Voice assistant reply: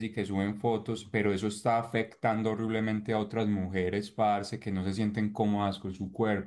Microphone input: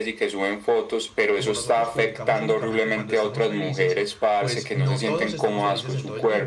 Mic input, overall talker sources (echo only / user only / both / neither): both